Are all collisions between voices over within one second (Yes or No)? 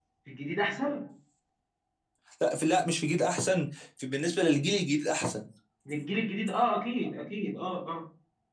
Yes